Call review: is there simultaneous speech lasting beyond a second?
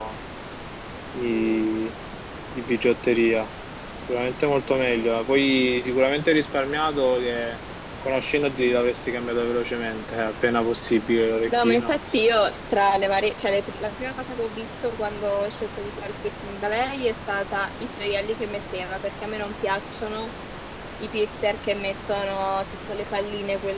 No

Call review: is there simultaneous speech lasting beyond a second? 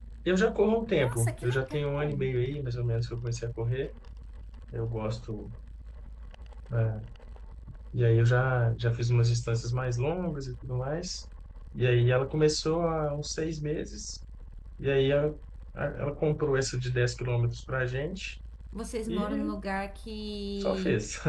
Yes, from 0.9 s

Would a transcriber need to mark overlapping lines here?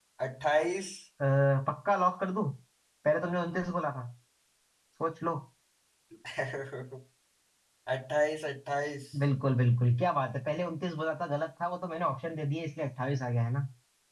No

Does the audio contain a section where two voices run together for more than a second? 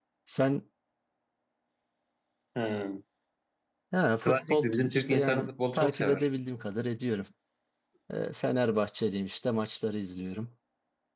Yes, from 4.2 s

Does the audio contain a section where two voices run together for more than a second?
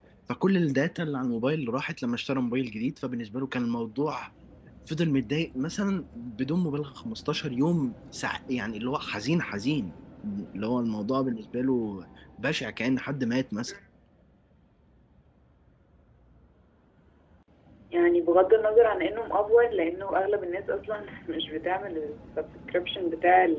No

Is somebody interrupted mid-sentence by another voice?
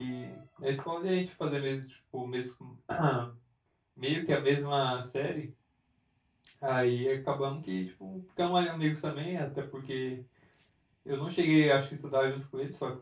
No

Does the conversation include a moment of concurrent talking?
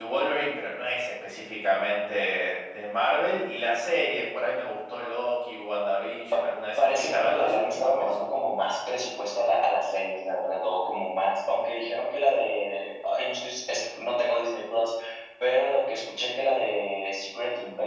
Yes, from 6.8 s

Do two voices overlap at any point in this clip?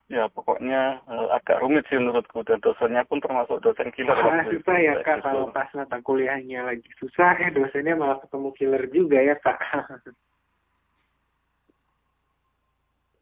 Yes, from 4.1 s

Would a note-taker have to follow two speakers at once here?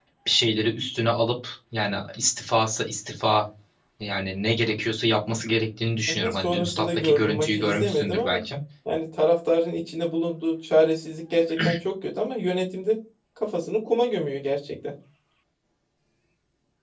Yes, from 6.1 s

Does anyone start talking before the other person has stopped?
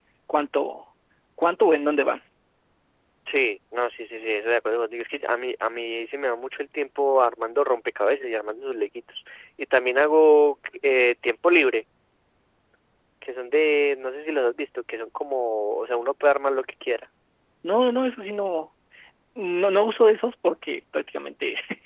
No

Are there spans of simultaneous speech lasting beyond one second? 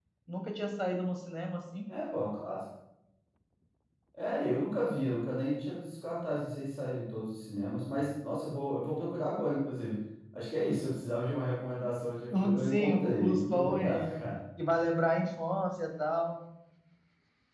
Yes, from 12.3 s

